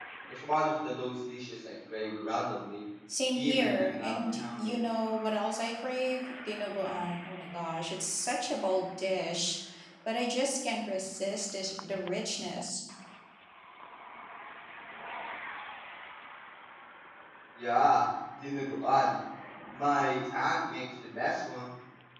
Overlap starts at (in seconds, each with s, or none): 3.3 s